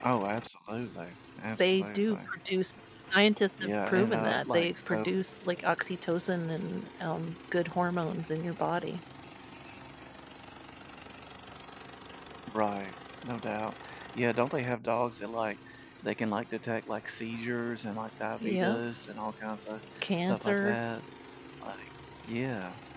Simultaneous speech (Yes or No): Yes